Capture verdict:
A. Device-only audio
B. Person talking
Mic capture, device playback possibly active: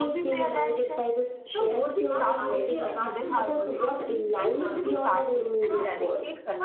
B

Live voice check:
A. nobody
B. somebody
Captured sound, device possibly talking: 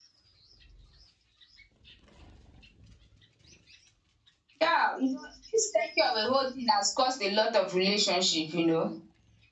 B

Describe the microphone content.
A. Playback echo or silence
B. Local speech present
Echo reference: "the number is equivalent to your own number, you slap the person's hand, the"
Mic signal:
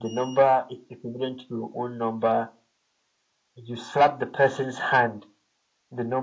A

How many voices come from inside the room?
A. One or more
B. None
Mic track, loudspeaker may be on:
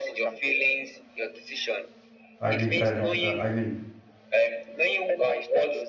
A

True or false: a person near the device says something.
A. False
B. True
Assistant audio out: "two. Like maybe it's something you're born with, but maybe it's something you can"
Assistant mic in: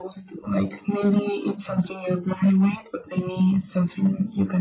A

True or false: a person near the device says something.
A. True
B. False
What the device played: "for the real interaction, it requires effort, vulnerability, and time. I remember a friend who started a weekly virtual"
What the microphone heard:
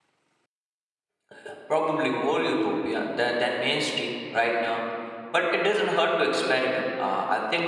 A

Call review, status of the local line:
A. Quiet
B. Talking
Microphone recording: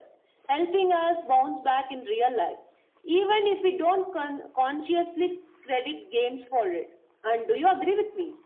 A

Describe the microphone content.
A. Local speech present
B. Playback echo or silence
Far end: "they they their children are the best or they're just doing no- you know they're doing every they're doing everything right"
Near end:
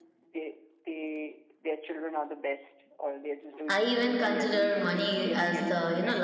A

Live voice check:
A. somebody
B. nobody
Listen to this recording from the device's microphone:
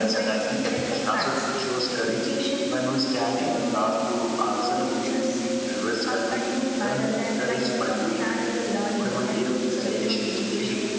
B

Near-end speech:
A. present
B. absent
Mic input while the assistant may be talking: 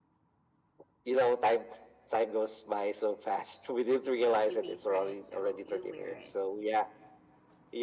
A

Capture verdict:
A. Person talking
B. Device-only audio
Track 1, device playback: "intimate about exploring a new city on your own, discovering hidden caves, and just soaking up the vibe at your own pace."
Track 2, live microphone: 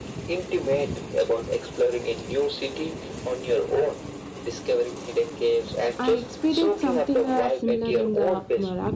A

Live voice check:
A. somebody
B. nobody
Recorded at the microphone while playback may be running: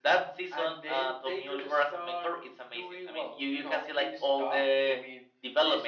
B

